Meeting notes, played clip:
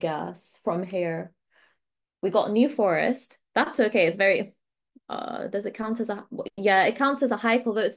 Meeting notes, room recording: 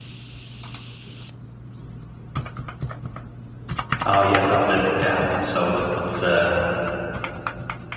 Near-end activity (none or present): present